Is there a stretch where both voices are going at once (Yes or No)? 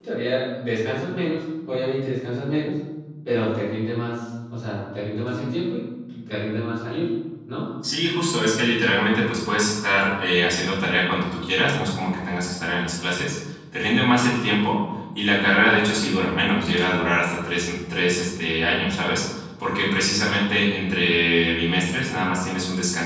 No